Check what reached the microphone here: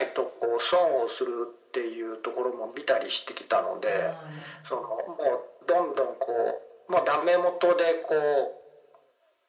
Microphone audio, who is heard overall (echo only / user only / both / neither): both